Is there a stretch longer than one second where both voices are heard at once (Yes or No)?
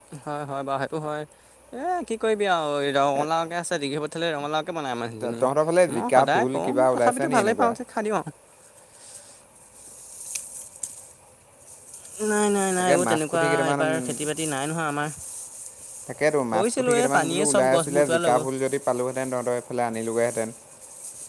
Yes